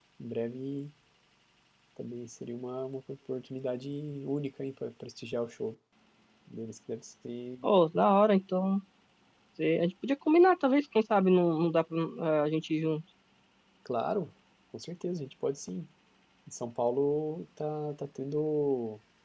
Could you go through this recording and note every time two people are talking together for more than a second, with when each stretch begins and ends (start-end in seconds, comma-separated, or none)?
none